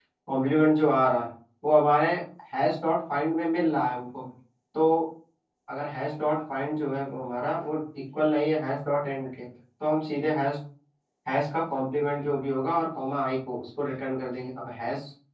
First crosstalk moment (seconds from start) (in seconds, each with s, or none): none